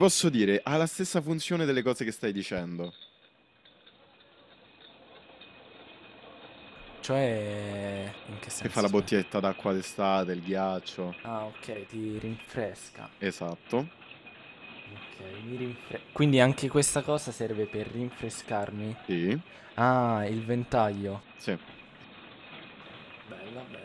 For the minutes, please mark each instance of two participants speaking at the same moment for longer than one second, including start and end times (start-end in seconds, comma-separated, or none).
none